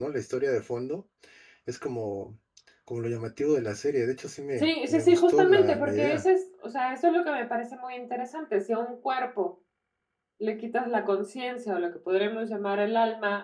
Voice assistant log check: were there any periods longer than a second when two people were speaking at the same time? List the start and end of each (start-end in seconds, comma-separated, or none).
4.6-6.2